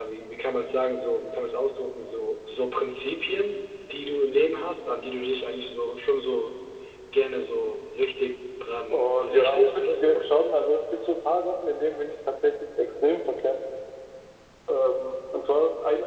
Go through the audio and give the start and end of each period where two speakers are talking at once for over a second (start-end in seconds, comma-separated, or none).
8.9-10.4